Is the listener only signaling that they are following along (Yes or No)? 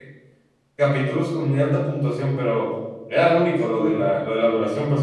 Yes